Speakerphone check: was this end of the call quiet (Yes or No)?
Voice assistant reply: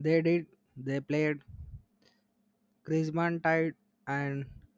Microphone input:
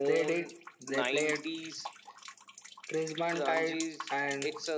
No